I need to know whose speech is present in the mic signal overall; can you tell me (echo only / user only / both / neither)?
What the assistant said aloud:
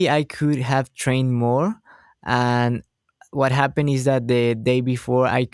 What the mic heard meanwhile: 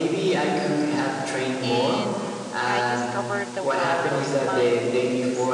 both